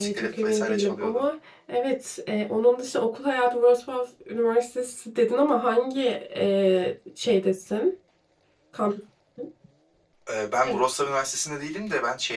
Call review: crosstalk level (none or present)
present